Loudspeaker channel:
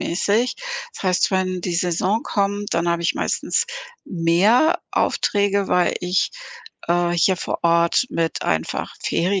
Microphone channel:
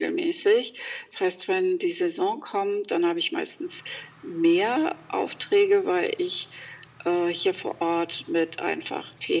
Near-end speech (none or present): none